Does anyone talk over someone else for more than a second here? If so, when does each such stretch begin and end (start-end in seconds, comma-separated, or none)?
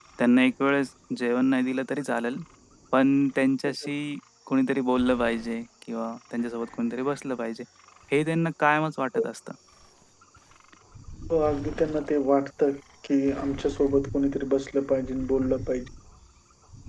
none